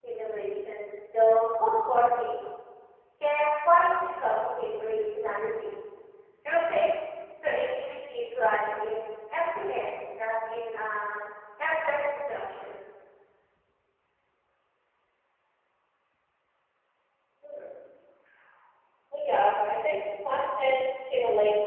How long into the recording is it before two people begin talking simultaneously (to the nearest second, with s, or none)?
none